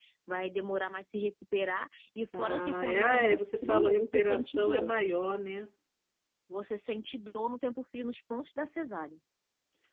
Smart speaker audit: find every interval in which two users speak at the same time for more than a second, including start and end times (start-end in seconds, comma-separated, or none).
2.4-4.9